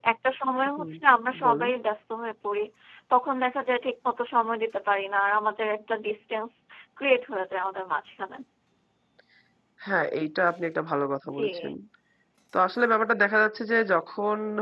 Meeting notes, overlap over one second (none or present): none